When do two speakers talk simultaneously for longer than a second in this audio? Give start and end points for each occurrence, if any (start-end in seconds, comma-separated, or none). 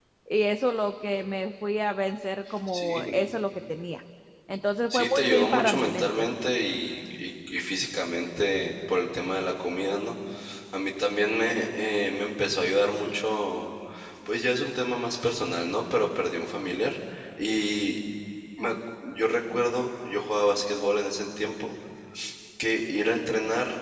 4.9-6.3